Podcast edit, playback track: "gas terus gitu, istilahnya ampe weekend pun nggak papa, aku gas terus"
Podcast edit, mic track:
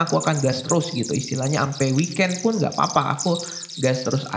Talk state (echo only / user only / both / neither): echo only